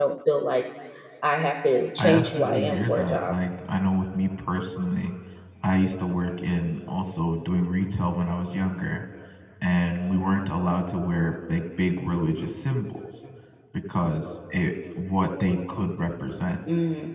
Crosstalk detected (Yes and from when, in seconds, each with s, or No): Yes, from 2.0 s